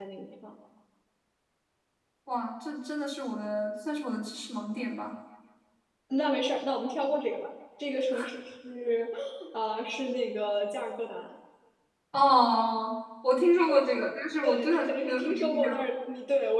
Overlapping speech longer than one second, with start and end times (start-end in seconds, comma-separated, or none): 14.4-15.8